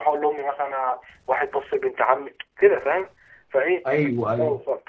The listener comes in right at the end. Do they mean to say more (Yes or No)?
No